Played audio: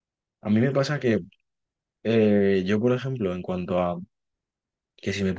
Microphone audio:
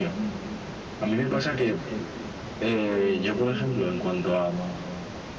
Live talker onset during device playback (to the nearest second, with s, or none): none